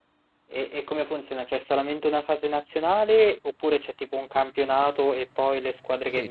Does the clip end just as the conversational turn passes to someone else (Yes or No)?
Yes